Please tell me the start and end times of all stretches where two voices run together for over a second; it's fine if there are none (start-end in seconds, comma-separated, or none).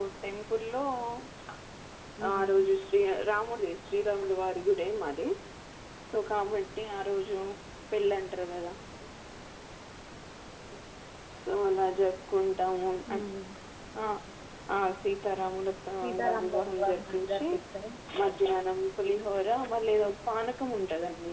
16.0-17.5